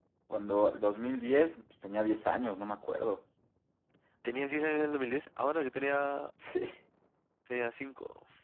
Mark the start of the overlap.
none

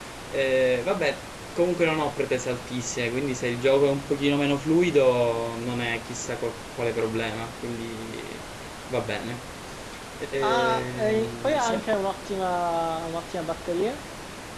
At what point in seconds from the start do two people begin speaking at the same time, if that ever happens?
10.4 s

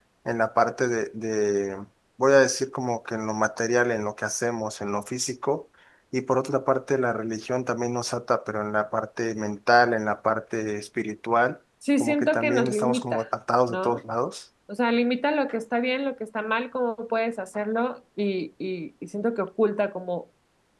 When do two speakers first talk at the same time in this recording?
11.8 s

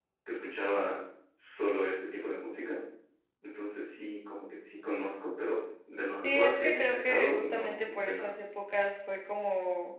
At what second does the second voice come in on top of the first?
6.2 s

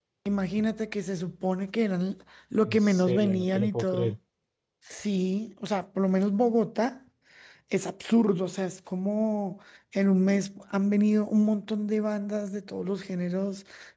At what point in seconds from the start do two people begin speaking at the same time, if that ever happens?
2.6 s

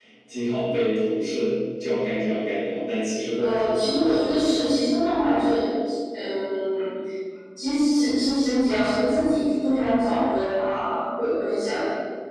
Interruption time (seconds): 3.4 s

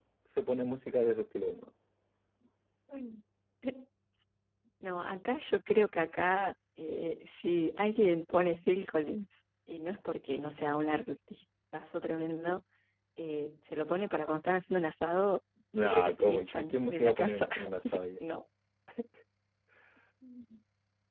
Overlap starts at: 15.7 s

